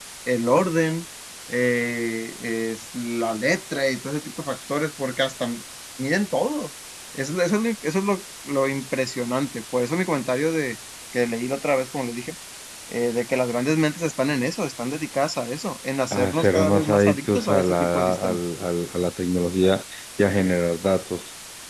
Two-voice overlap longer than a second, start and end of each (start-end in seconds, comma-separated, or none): 16.1-18.4